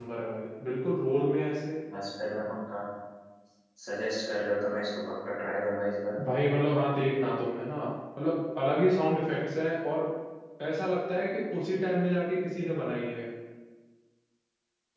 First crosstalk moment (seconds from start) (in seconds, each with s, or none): none